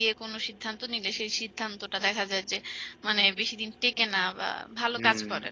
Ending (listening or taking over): taking over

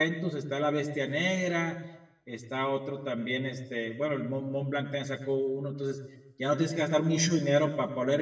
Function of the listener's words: listening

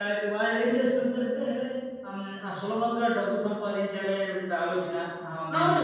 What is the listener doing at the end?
taking over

